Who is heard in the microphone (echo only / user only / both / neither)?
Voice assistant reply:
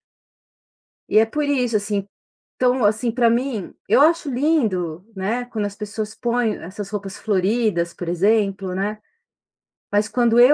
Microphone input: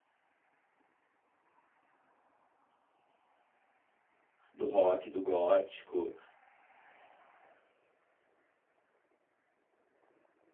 user only